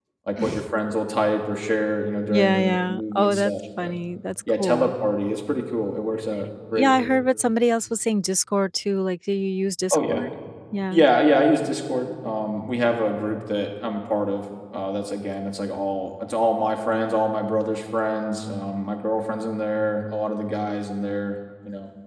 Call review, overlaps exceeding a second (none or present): present